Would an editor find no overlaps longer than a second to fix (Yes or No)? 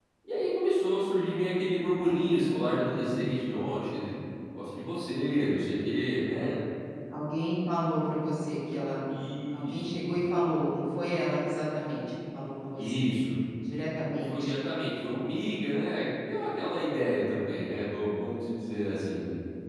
Yes